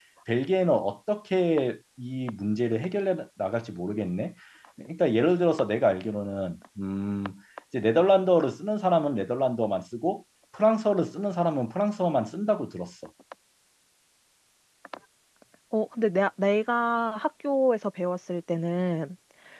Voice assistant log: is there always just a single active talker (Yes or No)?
Yes